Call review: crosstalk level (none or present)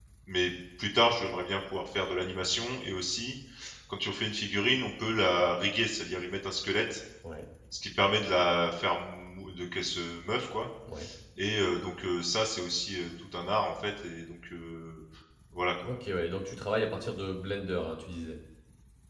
none